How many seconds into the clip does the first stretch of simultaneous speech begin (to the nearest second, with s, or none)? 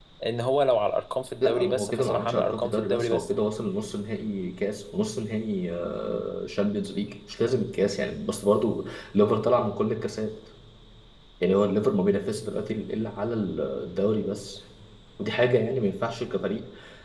1 s